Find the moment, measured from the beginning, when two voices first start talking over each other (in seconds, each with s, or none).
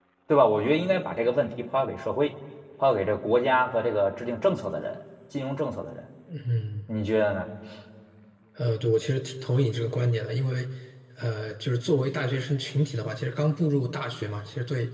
none